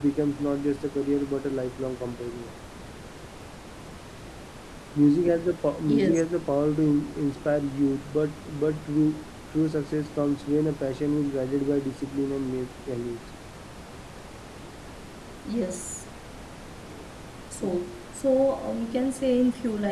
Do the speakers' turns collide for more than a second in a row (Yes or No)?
No